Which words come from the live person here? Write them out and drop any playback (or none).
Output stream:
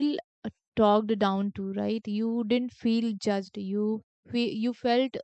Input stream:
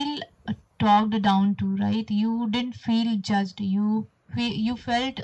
none